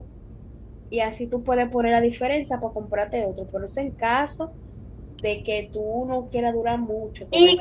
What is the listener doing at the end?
taking over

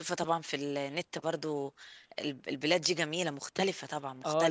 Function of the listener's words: taking over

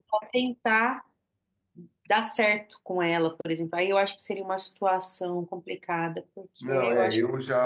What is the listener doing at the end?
taking over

